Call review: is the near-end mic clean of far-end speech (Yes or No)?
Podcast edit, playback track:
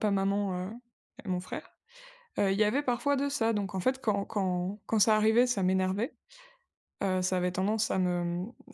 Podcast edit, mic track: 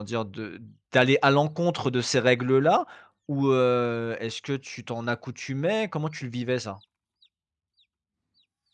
Yes